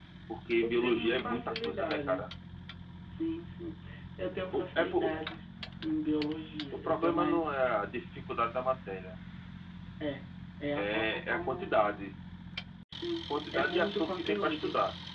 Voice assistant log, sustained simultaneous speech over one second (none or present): present